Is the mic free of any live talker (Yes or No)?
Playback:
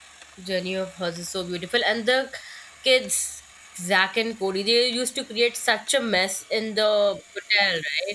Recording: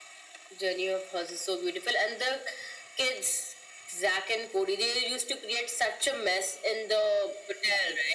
Yes